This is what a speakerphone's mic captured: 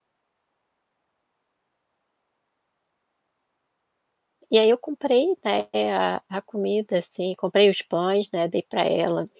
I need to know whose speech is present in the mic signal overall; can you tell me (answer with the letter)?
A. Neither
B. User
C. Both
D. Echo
B